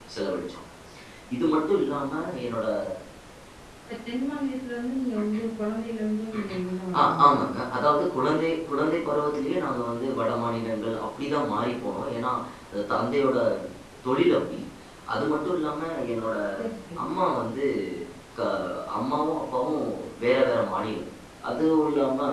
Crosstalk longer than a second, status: none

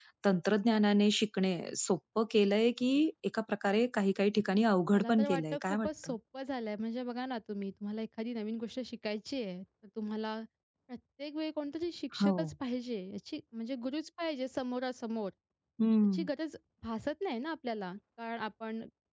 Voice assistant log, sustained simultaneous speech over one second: present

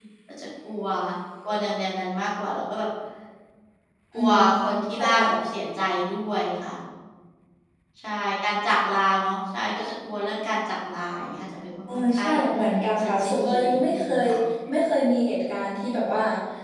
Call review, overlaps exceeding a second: present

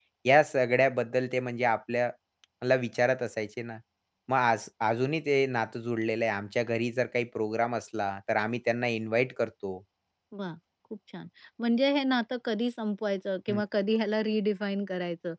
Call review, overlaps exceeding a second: none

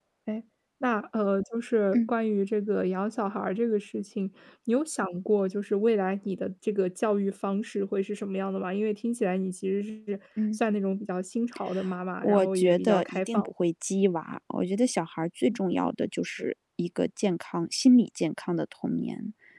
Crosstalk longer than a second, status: present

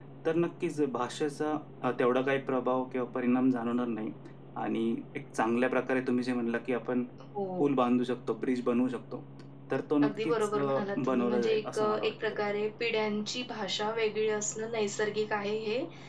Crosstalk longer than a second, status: present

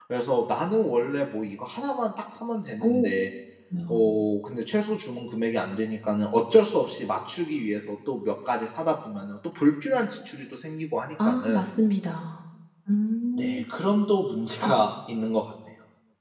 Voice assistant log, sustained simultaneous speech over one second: none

